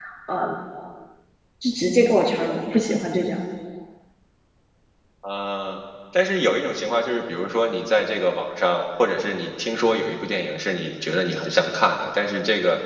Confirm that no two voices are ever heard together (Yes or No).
Yes